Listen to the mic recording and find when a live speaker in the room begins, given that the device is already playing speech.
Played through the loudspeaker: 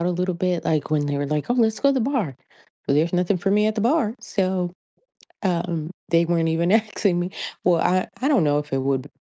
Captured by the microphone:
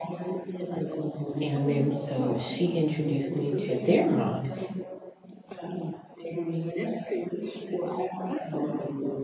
1.4 s

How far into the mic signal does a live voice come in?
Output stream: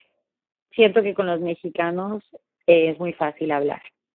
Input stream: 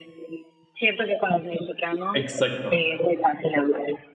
2.1 s

